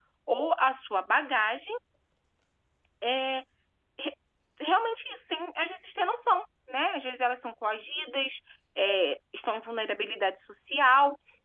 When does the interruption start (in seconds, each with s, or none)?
none